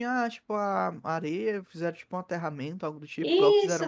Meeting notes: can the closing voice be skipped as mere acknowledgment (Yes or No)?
No